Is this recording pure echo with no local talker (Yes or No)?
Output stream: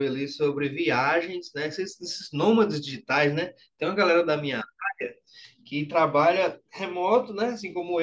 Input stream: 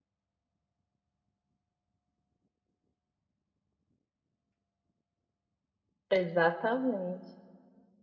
No